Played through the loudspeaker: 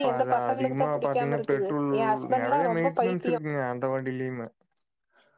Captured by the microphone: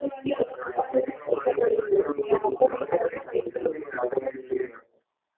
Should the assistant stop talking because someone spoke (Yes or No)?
No